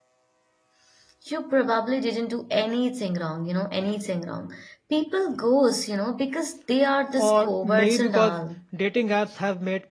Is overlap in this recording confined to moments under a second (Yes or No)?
No